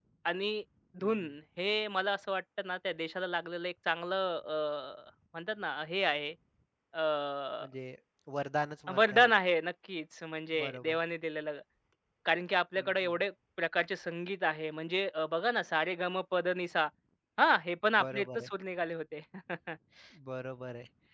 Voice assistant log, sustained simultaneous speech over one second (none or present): none